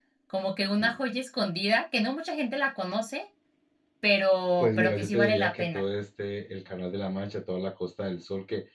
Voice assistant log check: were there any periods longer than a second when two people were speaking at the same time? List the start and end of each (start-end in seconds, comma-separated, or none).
4.6-5.8